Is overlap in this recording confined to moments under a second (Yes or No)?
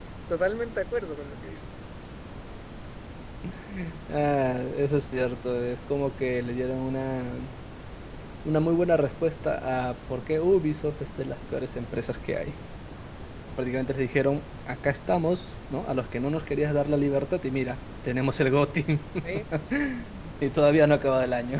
Yes